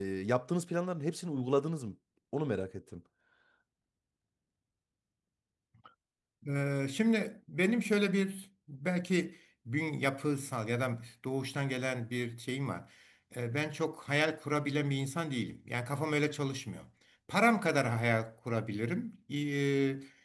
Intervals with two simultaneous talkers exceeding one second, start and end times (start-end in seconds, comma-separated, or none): none